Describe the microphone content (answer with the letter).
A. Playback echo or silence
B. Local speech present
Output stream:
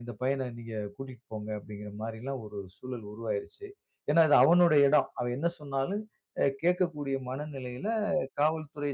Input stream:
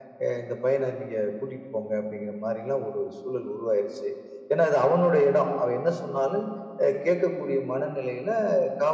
A